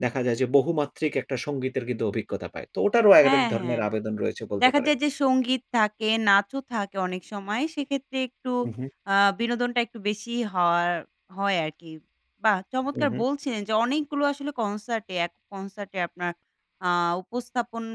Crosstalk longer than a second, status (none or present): none